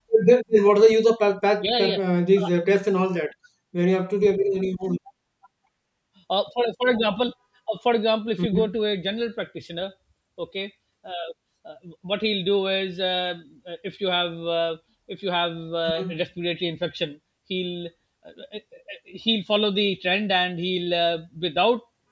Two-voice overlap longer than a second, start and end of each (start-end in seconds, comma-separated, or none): none